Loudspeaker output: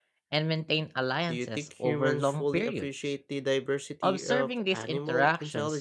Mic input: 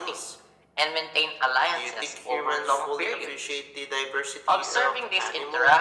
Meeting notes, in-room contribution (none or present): none